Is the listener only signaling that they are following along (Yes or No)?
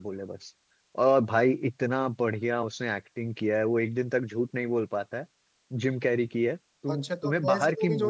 No